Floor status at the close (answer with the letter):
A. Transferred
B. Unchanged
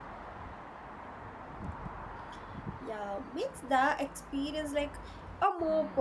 A